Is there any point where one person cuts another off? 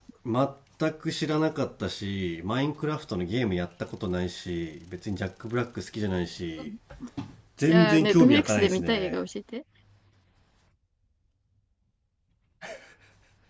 Yes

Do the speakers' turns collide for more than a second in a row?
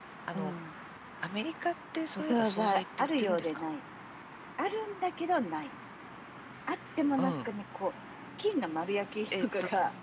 Yes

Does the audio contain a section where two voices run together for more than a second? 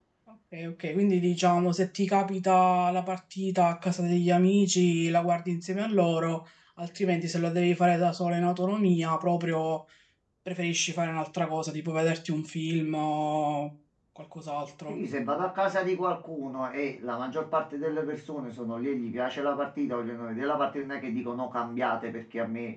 No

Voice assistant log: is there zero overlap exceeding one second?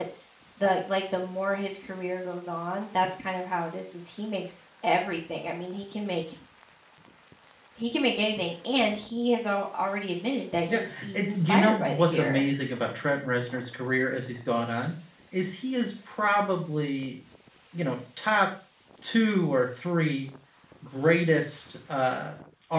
No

